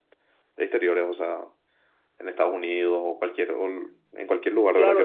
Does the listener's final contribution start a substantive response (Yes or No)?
Yes